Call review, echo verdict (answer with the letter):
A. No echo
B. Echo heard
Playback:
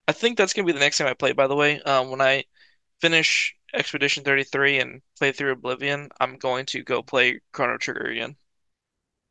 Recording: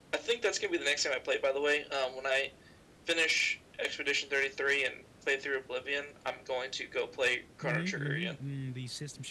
B